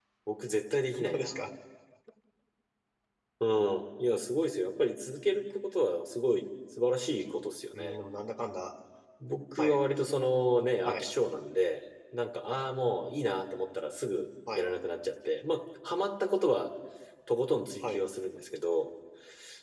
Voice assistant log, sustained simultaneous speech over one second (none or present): none